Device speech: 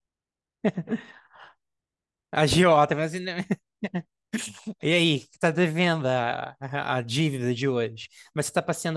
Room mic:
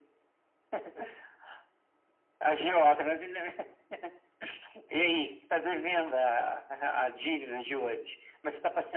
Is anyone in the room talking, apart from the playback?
No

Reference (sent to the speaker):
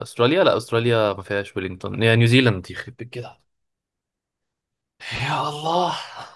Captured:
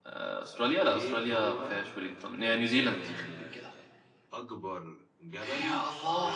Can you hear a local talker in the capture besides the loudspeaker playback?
Yes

